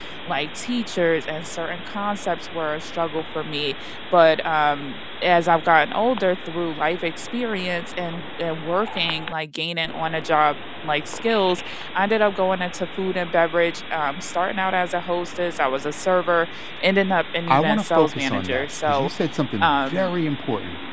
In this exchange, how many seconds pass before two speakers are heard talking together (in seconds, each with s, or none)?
17.5 s